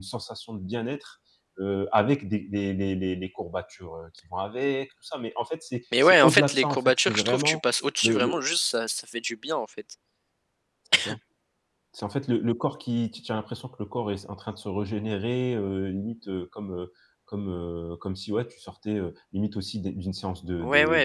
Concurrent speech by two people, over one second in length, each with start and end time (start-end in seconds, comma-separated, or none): 6.0-7.6